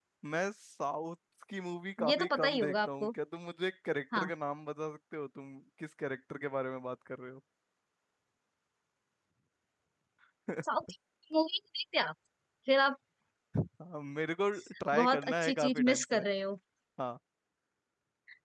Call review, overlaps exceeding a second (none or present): present